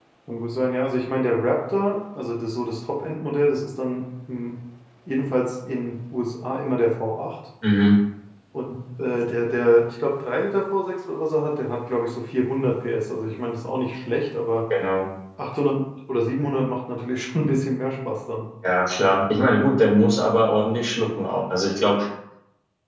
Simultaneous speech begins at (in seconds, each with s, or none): none